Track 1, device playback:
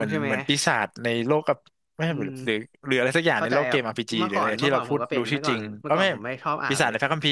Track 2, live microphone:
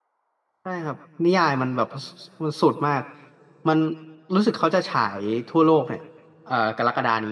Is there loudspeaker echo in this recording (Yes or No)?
No